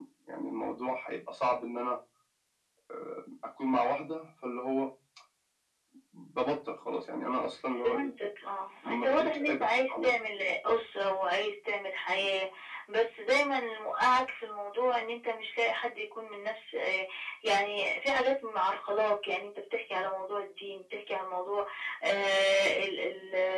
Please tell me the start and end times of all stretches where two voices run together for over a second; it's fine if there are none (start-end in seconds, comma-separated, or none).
8.8-10.1